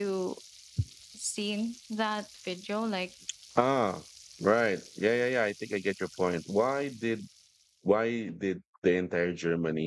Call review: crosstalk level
none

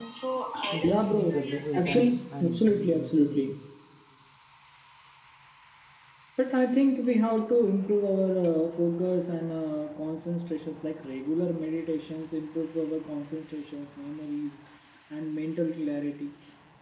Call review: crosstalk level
present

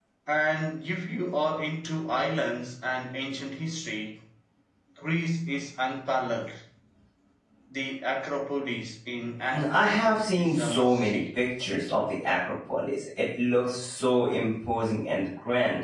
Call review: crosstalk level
present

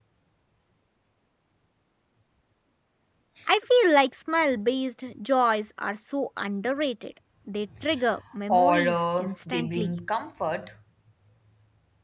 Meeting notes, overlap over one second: present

